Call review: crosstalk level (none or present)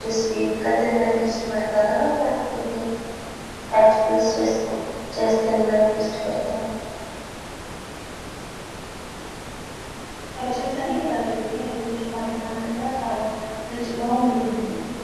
none